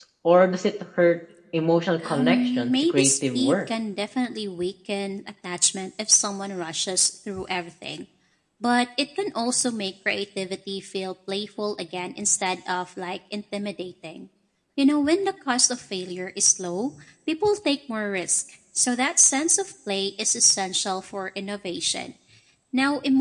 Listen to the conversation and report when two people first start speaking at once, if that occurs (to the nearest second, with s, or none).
2 s